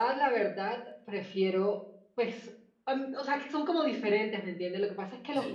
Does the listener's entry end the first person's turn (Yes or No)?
No